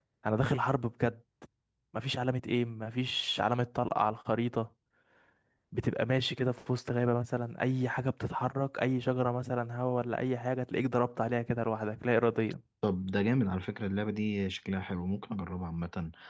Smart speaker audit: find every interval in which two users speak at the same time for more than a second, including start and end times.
none

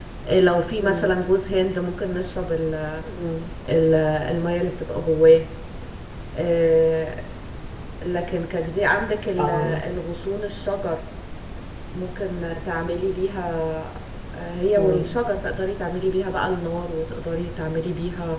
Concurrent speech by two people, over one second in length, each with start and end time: none

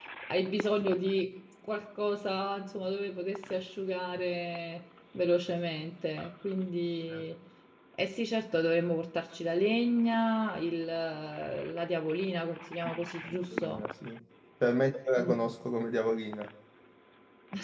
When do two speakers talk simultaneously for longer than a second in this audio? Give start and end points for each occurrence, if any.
none

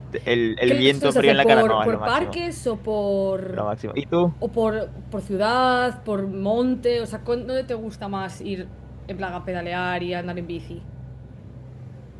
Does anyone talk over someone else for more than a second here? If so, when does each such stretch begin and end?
0.6-2.4

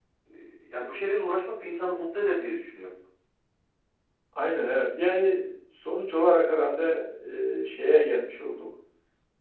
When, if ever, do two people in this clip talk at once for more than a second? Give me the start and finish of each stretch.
none

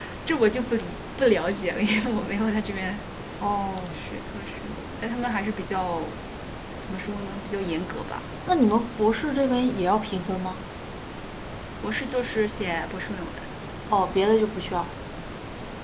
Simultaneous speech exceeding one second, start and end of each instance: none

